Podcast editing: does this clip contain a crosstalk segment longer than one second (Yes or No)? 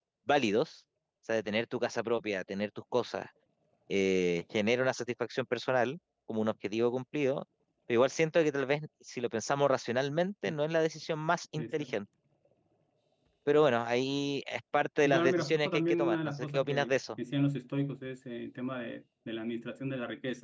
Yes